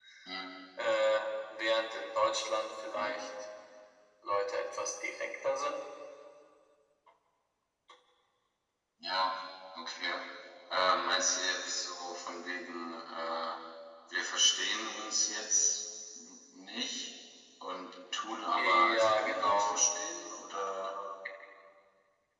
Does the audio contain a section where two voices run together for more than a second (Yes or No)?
Yes